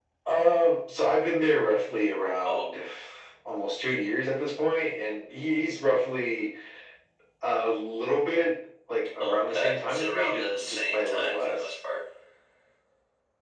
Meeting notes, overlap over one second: present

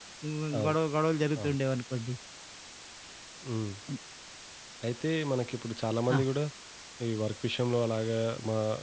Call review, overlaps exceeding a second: none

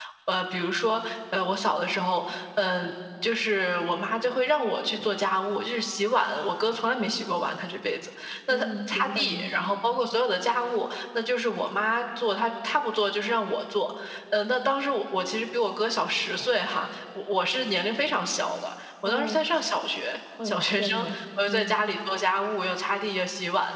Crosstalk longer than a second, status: present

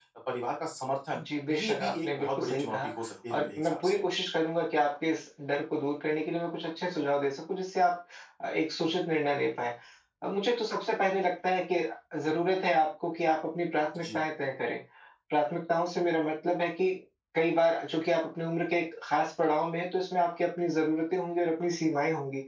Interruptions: present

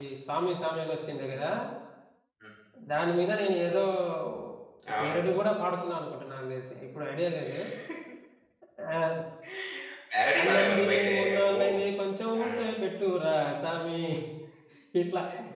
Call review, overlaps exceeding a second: present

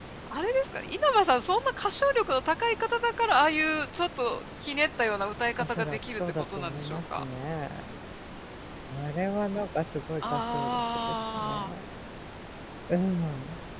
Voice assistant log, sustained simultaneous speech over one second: present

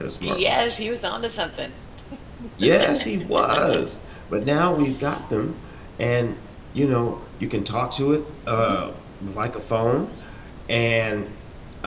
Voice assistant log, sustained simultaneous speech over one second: none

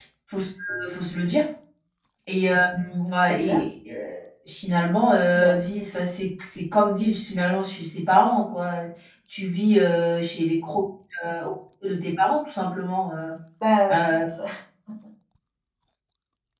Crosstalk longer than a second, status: none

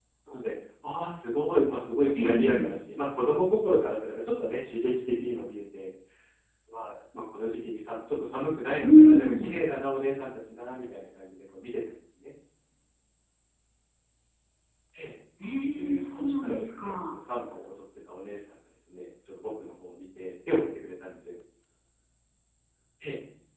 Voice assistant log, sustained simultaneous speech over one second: present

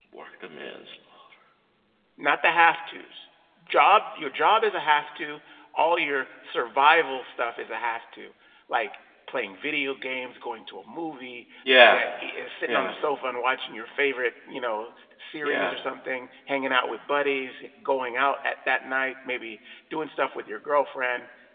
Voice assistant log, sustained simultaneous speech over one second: none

